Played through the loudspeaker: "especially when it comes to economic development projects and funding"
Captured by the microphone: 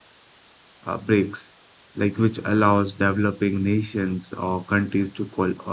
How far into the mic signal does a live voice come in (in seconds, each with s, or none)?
0.8 s